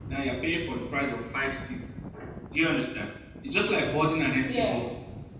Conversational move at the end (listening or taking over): listening